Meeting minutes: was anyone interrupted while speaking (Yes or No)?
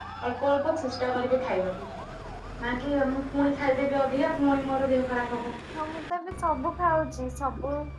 No